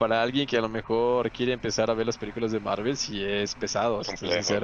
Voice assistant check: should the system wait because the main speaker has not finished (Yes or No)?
No